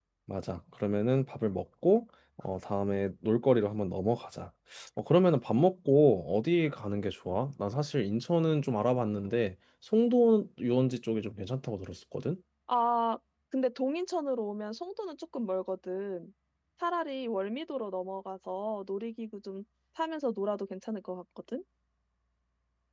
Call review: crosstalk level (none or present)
none